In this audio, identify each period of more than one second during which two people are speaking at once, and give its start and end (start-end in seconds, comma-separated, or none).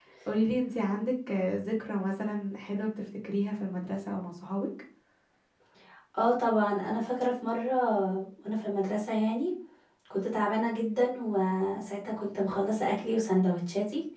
none